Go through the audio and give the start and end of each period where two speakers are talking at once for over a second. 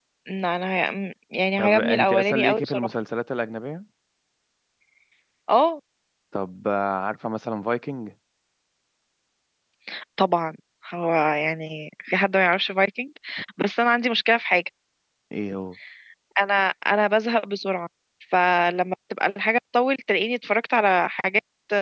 1.6-2.9

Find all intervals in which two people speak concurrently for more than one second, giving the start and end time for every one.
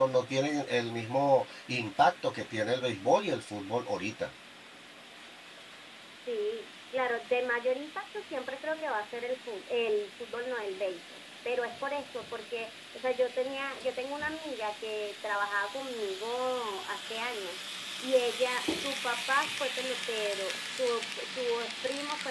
none

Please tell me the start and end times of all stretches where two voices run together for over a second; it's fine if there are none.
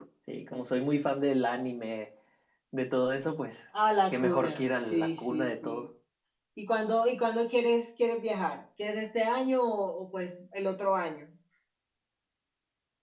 4.1-5.8

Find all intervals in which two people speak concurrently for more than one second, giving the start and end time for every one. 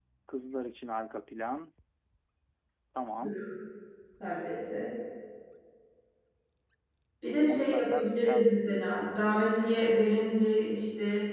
7.5-8.8

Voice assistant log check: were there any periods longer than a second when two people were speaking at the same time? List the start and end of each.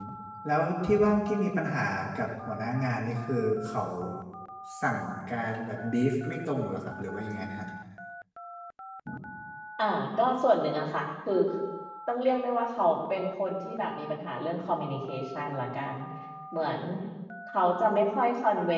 none

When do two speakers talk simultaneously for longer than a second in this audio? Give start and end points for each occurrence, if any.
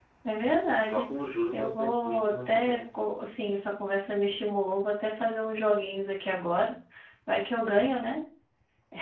1.5-2.8

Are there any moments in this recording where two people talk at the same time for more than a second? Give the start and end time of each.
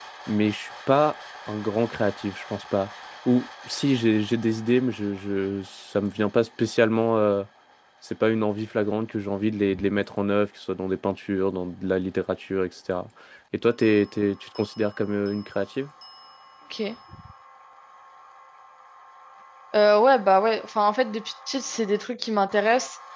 none

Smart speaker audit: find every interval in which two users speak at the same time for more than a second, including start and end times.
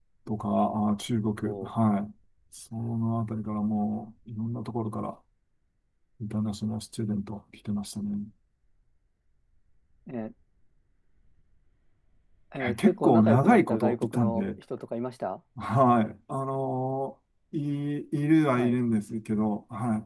12.6-14.5

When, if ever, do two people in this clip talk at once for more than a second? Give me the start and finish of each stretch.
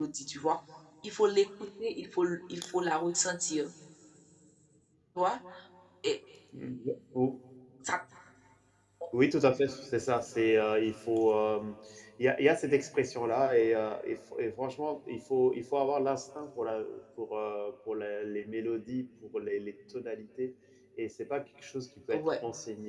none

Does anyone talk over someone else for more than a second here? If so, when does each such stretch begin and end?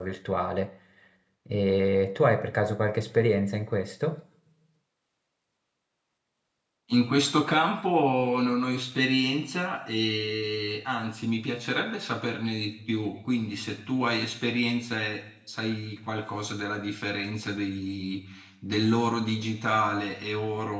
none

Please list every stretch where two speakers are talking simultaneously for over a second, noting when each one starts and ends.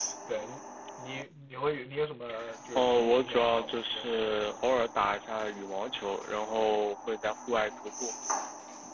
2.8-4.8

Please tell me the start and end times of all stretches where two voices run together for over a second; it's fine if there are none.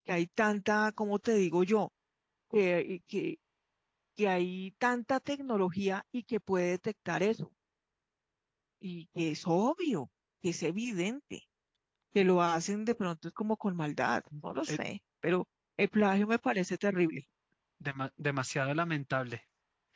none

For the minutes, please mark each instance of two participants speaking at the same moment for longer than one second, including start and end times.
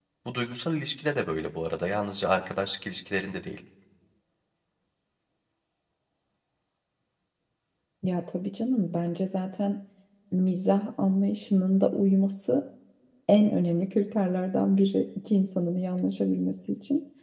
none

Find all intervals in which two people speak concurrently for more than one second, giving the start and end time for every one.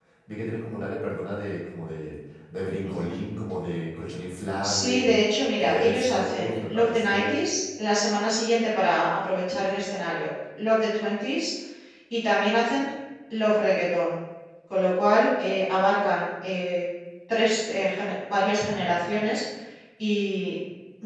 5.6-7.4

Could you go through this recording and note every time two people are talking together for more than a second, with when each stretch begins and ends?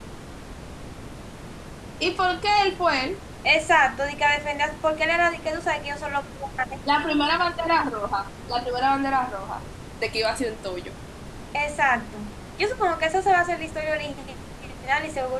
none

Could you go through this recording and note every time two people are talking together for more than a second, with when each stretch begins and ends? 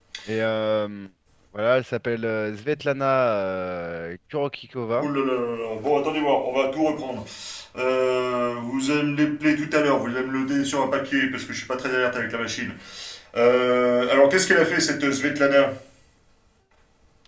none

